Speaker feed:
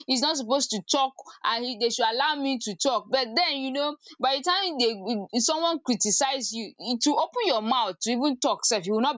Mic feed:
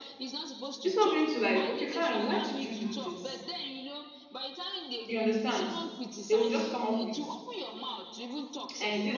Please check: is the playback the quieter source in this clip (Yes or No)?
Yes